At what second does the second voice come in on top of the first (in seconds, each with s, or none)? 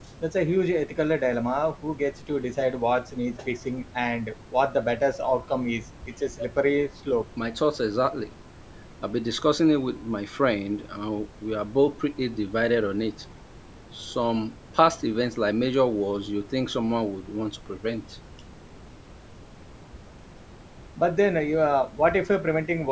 none